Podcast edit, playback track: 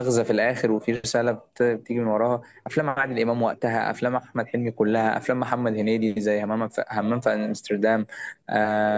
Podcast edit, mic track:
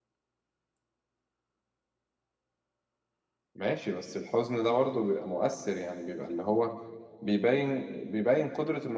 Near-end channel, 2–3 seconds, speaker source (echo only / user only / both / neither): neither